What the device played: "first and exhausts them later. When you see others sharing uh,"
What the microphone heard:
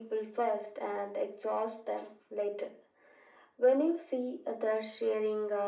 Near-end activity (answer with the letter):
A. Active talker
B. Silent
B